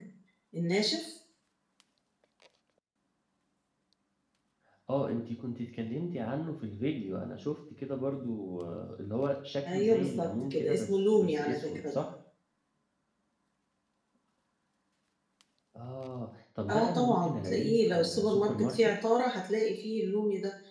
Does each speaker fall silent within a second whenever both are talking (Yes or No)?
No